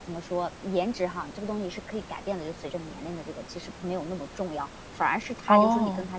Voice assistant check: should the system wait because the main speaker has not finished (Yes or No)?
Yes